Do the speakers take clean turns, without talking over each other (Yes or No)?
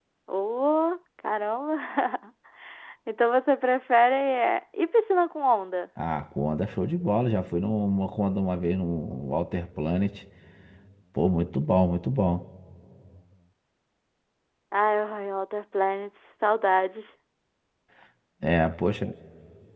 Yes